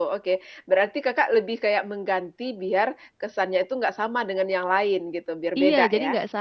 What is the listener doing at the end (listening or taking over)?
taking over